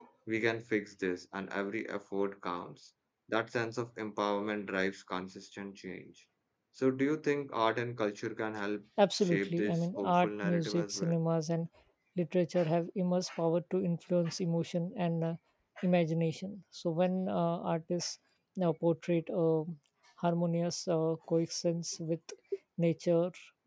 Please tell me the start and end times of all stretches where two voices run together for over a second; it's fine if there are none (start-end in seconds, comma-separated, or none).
9.1-11.1